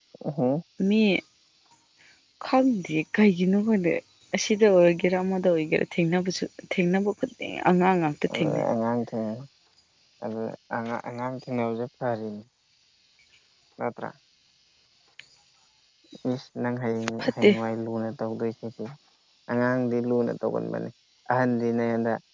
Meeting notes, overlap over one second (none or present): none